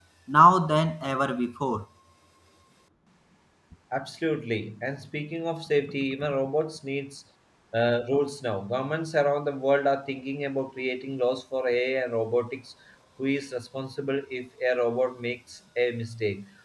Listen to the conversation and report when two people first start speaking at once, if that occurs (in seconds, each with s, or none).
none